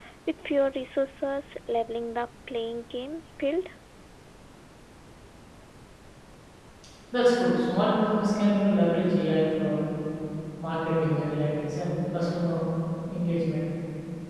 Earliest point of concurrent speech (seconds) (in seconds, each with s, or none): none